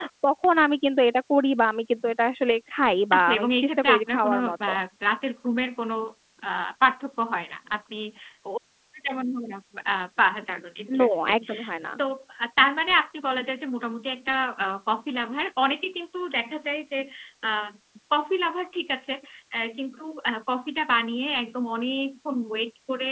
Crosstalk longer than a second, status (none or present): present